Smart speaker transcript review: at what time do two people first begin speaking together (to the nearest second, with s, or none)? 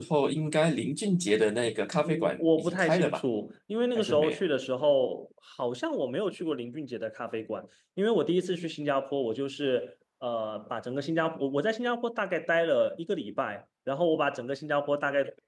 2 s